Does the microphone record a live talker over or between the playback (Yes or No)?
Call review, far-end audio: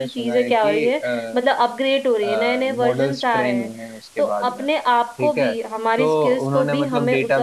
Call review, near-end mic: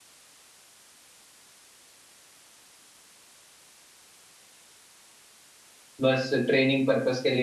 Yes